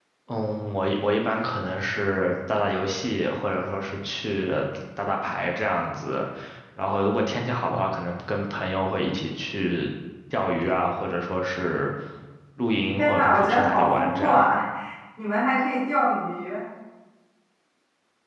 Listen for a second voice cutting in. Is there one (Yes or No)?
Yes